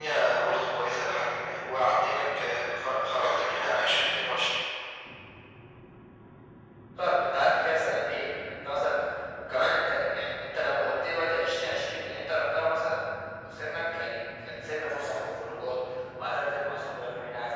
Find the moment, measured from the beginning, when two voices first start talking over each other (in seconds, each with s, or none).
none